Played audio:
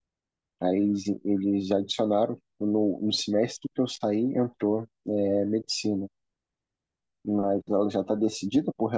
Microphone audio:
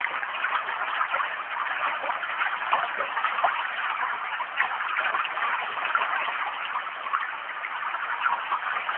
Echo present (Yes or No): No